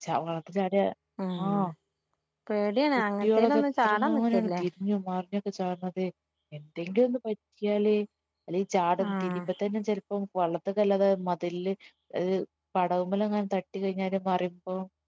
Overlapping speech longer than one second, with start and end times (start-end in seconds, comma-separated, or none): 3.2-4.6